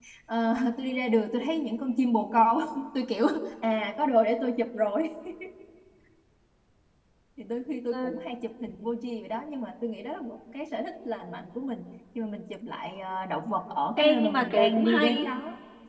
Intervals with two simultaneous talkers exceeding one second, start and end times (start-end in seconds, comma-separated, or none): 14.0-15.3